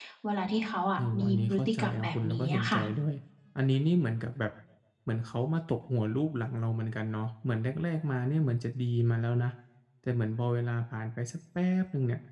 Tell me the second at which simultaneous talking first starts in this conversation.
1.0 s

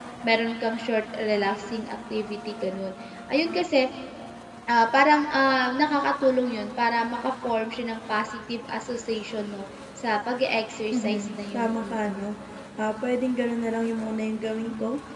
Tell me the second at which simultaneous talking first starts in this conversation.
10.9 s

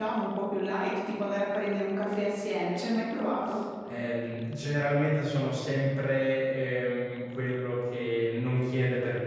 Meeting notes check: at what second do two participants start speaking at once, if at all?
none

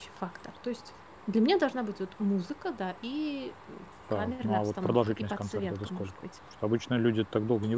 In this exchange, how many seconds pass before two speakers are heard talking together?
4.1 s

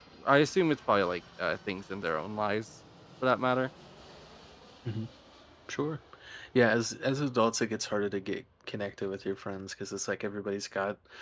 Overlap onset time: none

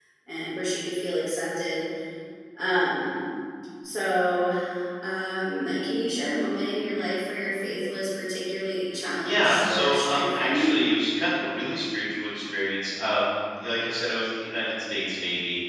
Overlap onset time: 9.2 s

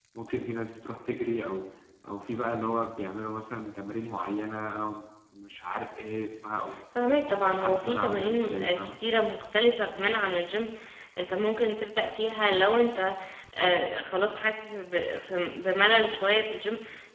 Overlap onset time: 7.2 s

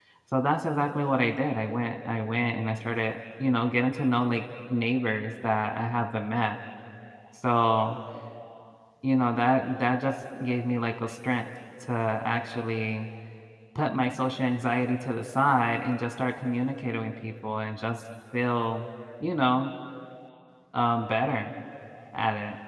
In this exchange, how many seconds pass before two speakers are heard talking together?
none

